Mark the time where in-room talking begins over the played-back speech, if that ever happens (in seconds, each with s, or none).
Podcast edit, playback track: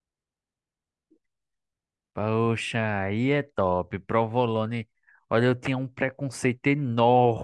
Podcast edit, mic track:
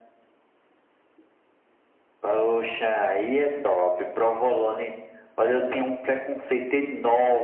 none